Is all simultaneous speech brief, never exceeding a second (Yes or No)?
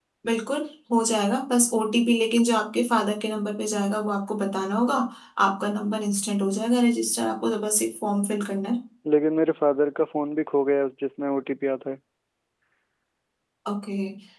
Yes